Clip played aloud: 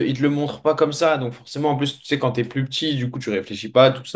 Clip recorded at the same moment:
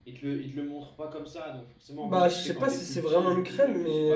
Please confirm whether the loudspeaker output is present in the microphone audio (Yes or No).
Yes